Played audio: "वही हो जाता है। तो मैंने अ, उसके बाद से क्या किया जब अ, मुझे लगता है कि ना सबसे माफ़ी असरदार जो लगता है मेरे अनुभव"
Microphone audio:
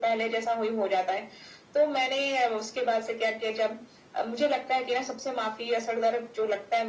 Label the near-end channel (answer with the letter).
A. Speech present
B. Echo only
B